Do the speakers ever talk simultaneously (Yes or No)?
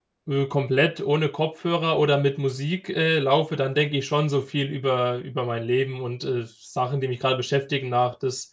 No